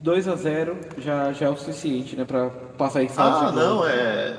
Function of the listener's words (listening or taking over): taking over